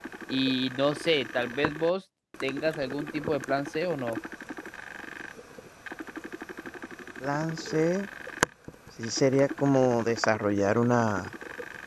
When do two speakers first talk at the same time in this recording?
none

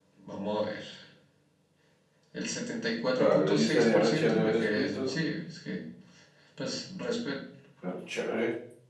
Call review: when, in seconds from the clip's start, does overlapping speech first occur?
3 s

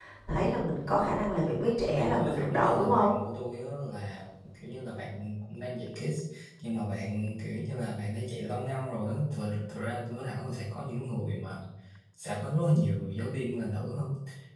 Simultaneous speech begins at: 2 s

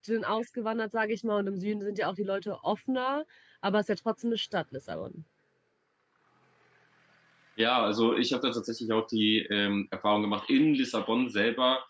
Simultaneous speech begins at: none

